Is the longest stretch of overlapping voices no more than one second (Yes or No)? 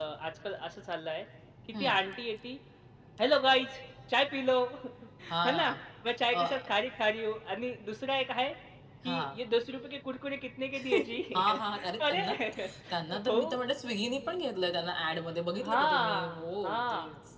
No